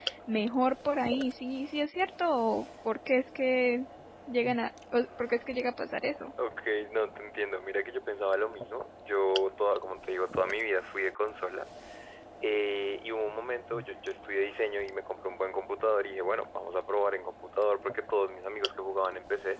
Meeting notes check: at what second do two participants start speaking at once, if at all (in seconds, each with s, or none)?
none